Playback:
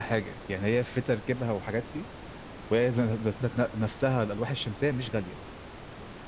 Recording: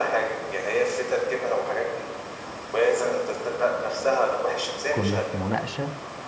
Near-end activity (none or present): present